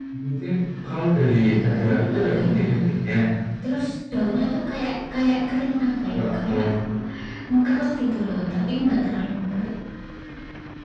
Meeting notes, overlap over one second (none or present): present